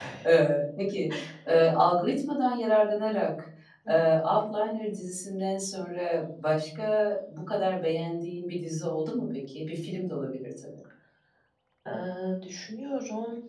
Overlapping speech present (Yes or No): No